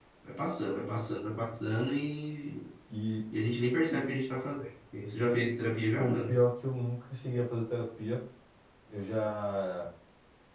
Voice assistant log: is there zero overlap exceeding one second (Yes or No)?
Yes